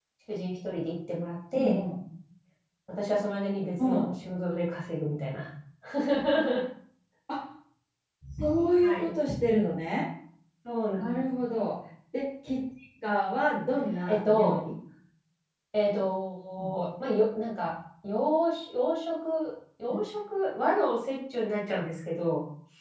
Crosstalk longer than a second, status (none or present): none